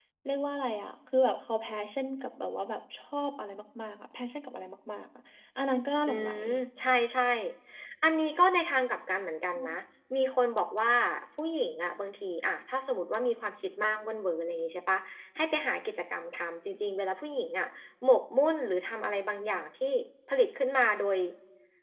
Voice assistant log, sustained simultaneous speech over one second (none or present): none